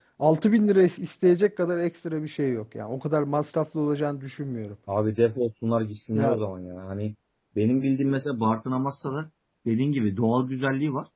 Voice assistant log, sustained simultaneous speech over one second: none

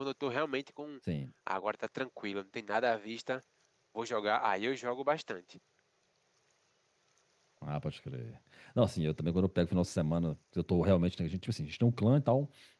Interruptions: none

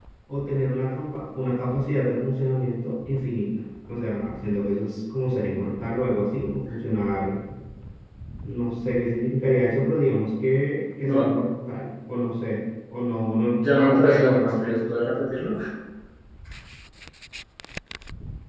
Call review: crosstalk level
present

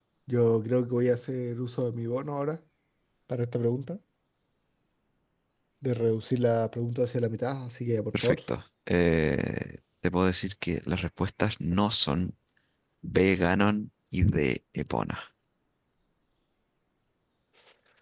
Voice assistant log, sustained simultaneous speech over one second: none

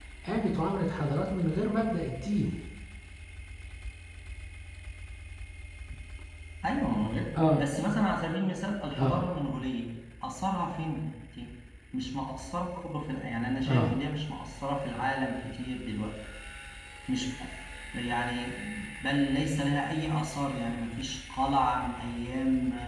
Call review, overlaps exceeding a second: none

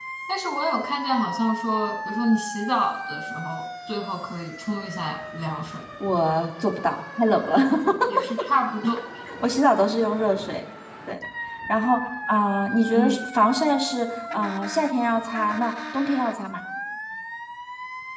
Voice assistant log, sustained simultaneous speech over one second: none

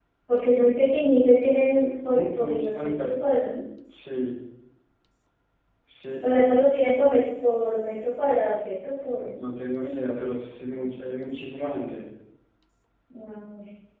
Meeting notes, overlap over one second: present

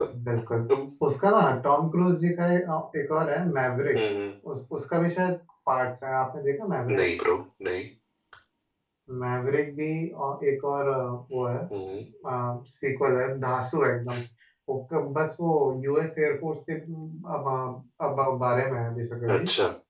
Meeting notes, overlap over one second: none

